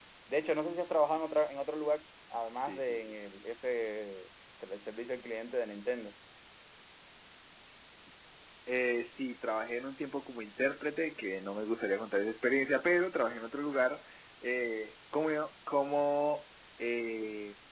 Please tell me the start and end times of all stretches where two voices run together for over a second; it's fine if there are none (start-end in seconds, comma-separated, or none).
none